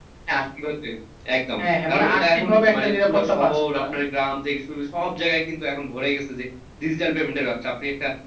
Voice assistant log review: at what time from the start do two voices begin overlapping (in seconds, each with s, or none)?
1.9 s